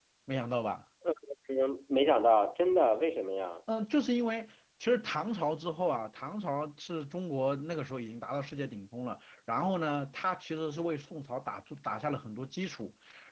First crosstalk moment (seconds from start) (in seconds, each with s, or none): none